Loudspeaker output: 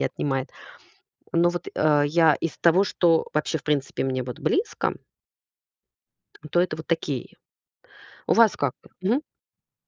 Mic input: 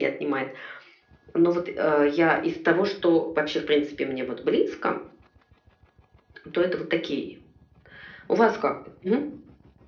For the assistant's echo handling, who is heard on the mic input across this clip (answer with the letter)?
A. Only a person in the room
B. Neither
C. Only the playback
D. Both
C